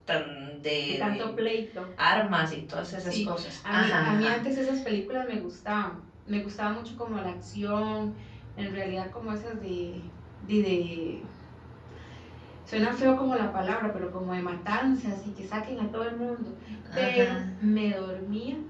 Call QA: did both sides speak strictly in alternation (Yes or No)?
No